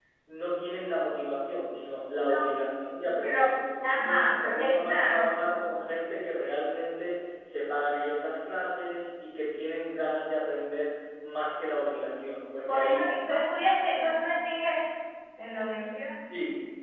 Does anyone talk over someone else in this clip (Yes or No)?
Yes